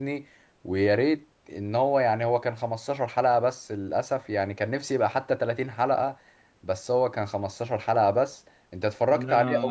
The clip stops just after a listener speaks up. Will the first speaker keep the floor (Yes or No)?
No